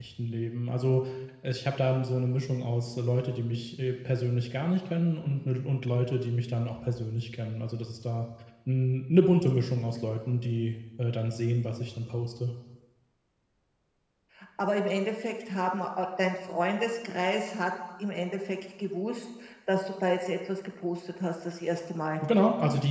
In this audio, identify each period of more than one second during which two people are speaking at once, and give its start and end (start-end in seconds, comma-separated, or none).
none